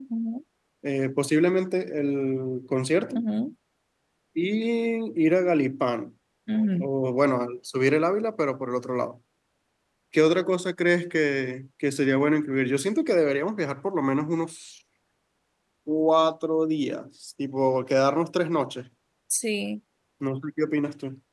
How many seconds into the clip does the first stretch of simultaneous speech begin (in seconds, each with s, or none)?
none